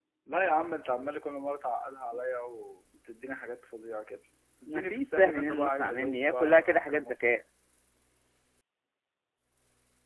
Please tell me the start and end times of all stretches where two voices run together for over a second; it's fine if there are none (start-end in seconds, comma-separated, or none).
4.7-7.1